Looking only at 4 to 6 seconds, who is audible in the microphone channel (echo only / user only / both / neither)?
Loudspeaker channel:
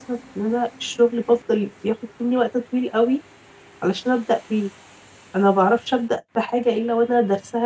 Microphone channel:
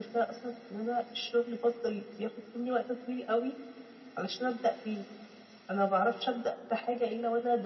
echo only